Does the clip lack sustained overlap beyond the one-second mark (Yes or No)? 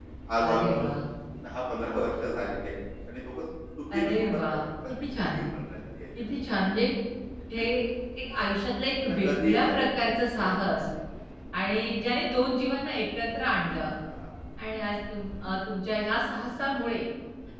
No